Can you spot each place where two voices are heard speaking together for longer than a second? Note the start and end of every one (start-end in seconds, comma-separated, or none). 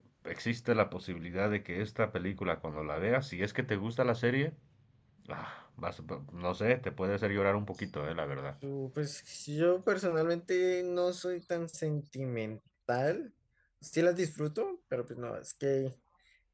none